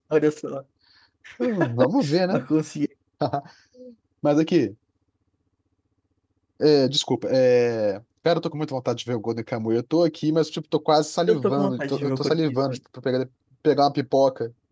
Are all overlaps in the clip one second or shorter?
No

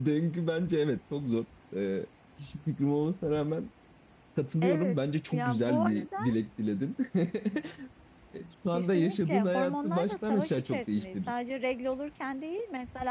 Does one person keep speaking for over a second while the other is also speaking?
Yes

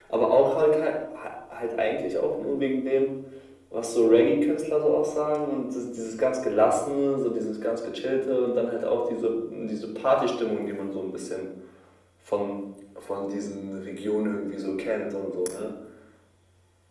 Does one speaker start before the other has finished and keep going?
No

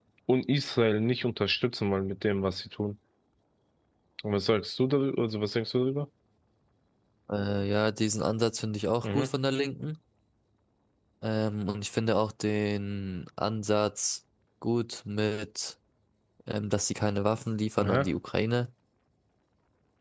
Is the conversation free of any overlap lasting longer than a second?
Yes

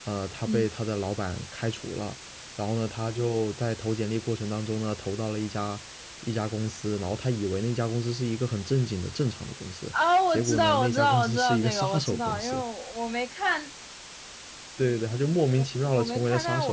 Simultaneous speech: Yes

